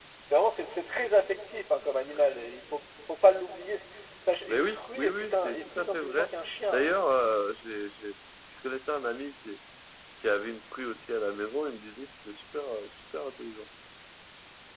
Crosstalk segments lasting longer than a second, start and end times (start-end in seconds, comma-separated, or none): 4.5-6.3